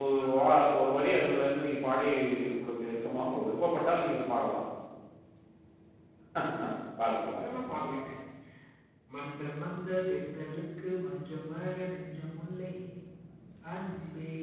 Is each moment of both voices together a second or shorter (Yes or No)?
Yes